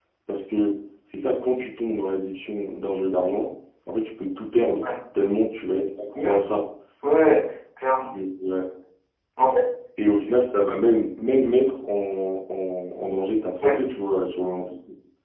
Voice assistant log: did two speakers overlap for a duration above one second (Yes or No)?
No